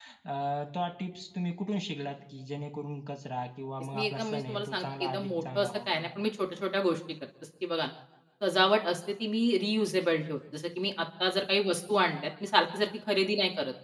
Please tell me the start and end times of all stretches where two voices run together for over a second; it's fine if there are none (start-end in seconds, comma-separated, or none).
3.9-6.1